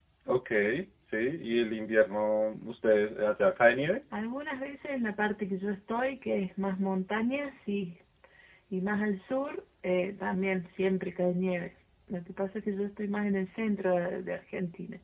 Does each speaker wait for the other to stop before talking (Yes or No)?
Yes